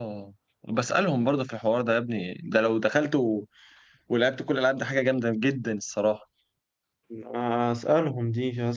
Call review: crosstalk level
none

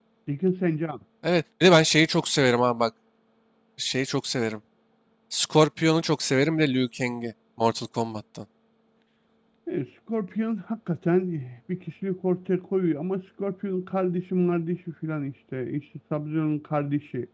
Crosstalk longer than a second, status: none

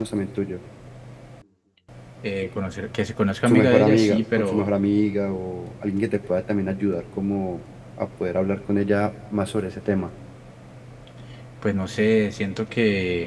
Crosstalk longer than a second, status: present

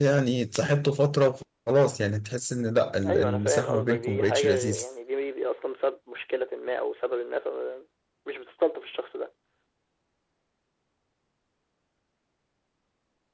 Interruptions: present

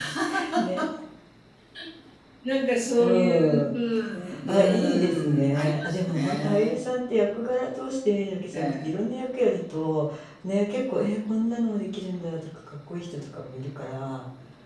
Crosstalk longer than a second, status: present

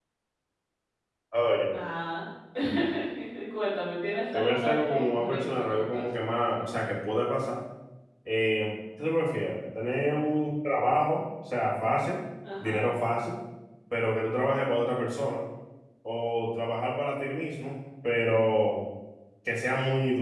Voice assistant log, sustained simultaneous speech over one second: present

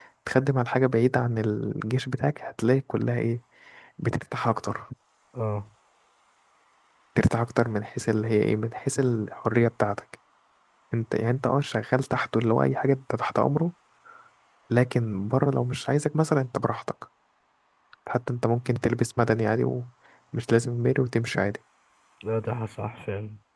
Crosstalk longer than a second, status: none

